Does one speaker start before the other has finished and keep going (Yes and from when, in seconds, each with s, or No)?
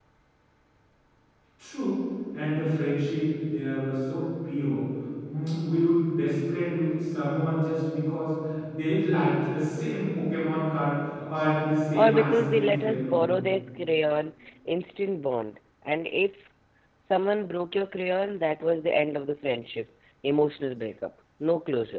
Yes, from 12.0 s